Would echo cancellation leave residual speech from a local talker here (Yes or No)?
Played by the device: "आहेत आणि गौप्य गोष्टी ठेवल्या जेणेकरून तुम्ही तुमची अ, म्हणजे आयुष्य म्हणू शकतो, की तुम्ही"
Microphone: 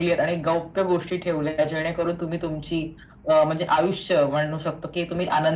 No